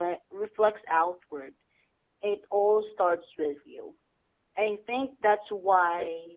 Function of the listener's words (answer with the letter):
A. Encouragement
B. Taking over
A